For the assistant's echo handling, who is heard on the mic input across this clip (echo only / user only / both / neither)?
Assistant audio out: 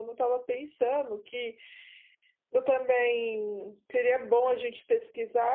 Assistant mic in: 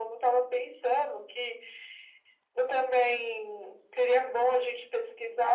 echo only